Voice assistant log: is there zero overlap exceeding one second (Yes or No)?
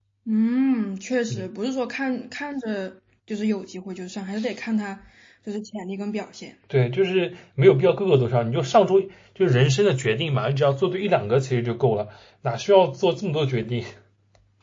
Yes